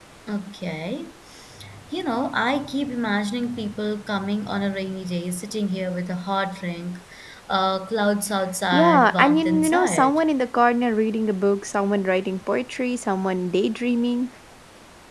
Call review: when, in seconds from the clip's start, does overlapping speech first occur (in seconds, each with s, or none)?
8.7 s